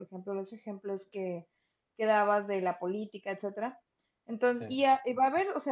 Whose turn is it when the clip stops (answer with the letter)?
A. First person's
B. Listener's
A